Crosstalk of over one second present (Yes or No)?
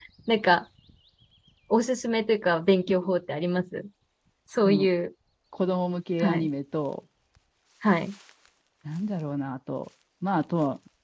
No